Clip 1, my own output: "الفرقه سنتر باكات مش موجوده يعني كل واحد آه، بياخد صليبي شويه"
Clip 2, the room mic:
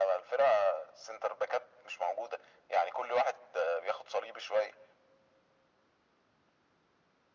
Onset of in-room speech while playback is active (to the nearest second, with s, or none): none